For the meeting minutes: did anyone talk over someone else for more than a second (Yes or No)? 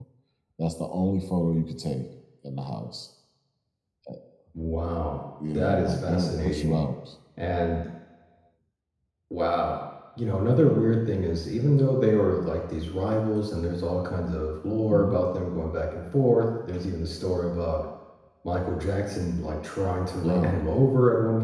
Yes